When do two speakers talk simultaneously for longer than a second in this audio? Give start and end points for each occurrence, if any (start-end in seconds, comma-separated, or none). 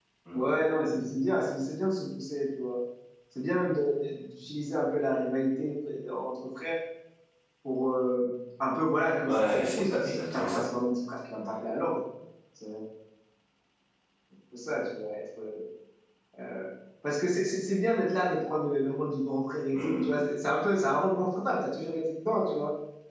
9.2-10.7